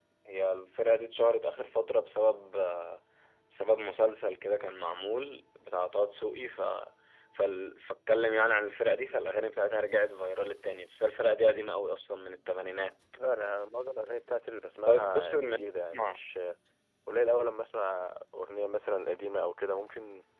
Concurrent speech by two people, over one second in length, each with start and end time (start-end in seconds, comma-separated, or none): 14.9-16.2